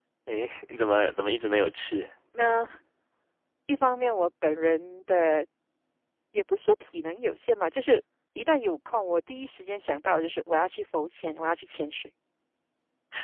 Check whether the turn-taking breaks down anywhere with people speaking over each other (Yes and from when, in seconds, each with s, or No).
No